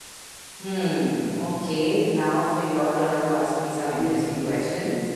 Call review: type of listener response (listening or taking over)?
taking over